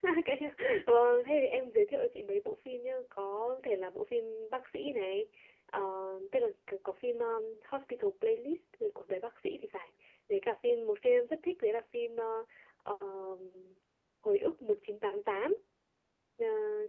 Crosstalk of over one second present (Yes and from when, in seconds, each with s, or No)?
No